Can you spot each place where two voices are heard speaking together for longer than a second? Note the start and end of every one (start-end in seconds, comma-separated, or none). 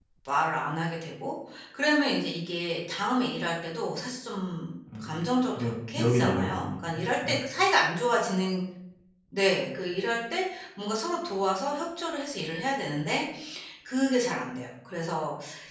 5.5-7.3